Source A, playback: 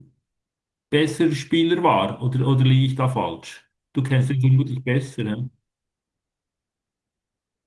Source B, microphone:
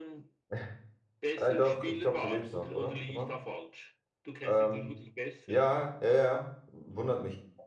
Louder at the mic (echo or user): user